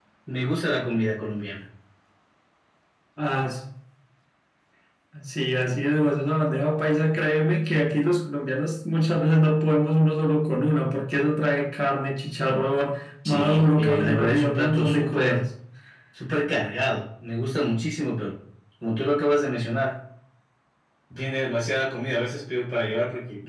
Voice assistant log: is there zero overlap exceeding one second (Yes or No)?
No